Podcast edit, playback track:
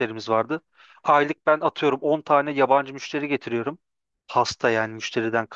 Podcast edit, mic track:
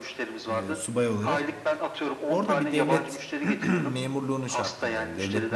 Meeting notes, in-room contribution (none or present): present